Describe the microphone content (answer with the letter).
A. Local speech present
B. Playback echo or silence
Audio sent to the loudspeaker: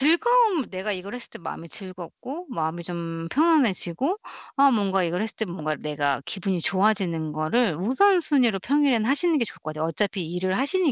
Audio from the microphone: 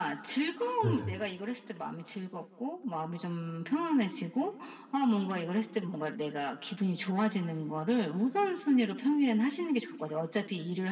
A